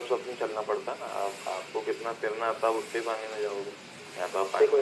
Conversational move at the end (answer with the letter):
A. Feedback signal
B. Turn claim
B